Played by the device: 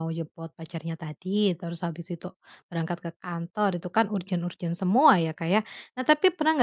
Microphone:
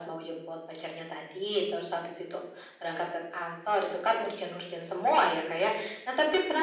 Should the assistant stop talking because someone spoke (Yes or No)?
No